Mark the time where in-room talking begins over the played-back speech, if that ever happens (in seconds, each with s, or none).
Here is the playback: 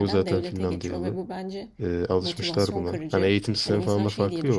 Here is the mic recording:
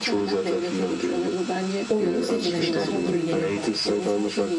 1.9 s